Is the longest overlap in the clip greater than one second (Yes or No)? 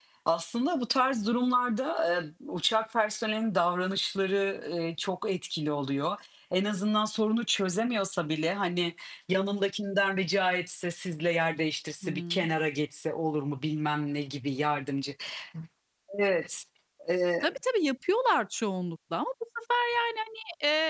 No